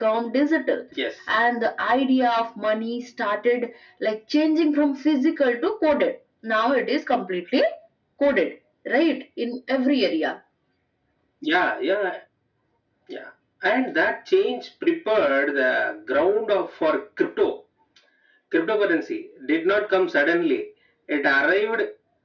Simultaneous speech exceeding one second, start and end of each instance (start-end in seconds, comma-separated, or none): none